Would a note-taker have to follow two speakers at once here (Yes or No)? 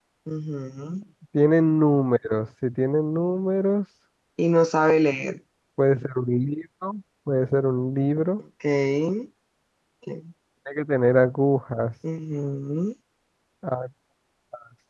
No